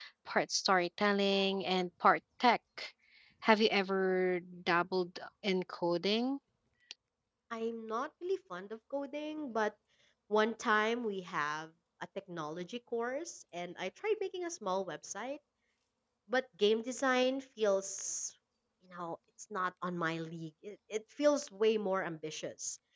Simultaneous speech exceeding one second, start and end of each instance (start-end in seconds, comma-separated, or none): none